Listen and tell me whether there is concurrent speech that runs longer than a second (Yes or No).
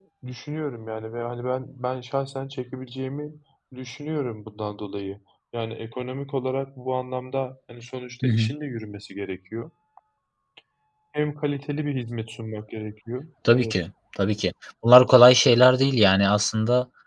No